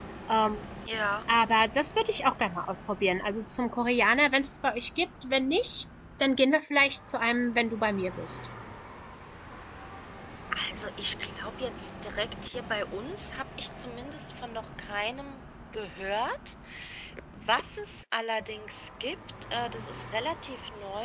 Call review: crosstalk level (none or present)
none